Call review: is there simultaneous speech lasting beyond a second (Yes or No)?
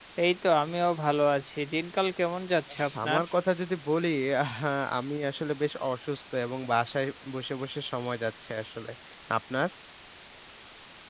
No